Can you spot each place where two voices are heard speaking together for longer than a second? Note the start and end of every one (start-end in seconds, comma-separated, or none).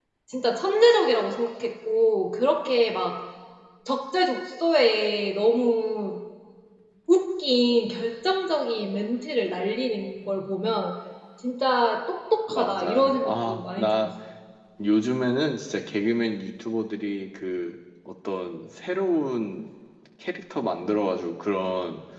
12.5-14.1